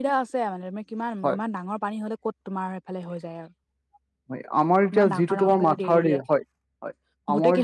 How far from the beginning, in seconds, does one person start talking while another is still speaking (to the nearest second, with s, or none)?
5 s